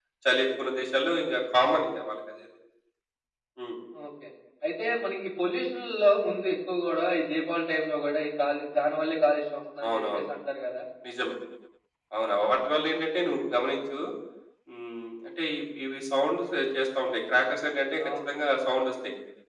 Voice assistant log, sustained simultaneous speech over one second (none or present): none